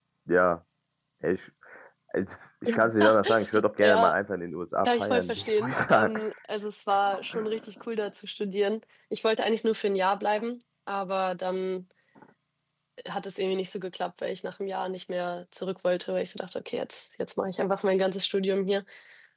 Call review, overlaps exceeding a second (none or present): present